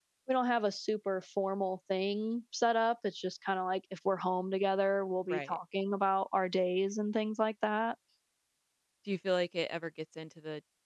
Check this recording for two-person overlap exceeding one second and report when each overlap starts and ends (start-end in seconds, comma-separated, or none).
none